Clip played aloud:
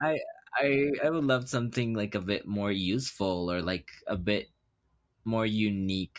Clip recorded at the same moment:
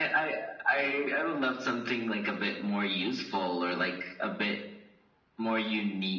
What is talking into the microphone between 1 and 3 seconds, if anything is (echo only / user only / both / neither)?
echo only